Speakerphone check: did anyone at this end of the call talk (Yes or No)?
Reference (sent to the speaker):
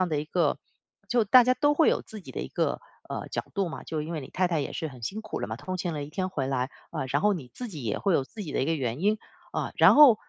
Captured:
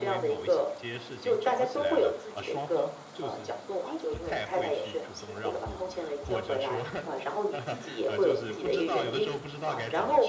Yes